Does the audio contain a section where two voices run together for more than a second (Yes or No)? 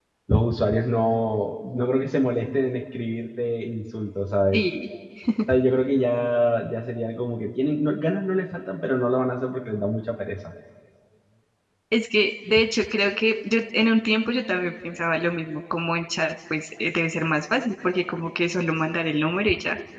No